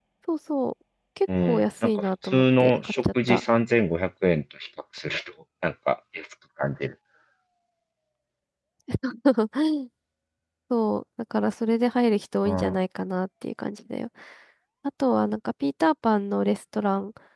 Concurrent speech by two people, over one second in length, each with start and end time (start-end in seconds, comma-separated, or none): 1.4-3.4